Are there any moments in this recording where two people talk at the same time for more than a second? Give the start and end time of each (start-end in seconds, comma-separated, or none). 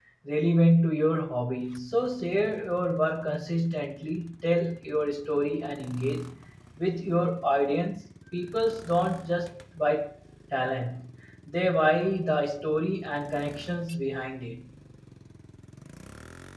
none